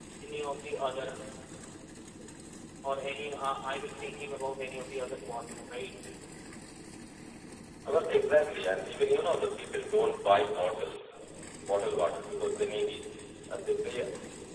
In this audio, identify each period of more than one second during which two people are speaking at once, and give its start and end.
none

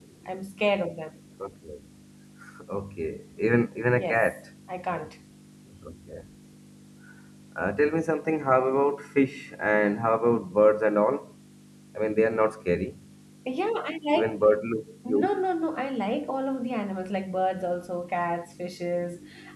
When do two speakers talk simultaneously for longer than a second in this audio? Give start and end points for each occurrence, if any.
none

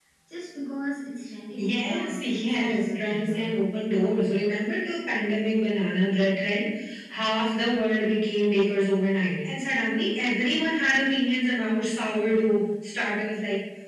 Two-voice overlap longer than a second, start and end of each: 1.6-3.4

